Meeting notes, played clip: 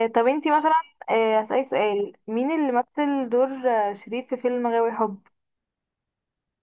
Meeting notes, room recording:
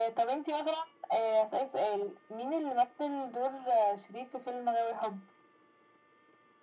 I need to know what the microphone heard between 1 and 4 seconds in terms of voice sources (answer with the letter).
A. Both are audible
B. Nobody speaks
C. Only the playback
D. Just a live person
C